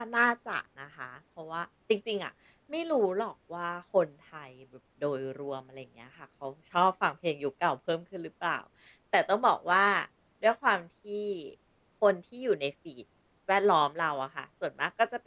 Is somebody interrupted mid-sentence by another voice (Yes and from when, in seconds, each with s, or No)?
No